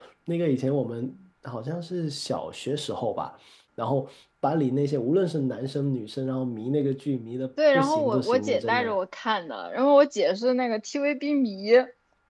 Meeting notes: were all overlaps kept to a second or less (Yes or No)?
No